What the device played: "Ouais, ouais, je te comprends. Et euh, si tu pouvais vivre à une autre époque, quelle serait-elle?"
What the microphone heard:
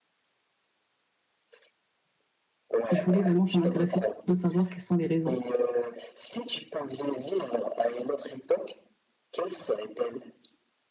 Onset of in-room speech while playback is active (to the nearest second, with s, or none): 3 s